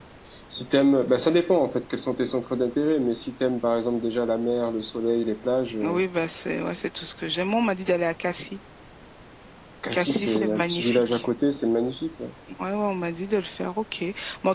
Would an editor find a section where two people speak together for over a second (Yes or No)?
Yes